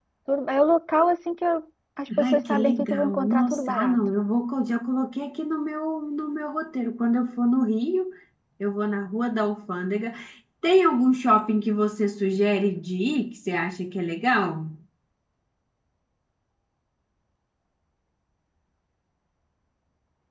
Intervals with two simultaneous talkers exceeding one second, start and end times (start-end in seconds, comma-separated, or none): 2.2-4.0